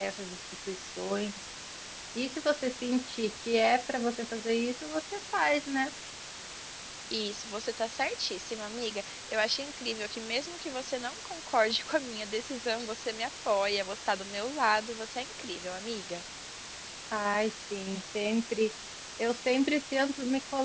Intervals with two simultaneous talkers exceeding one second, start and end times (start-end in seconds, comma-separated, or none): none